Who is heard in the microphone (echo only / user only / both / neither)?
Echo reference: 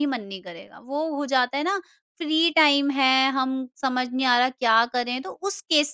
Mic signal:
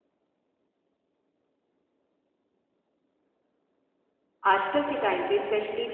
user only